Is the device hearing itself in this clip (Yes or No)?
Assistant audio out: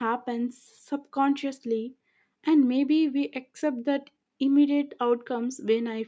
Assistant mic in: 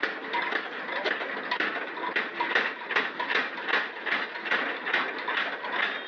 No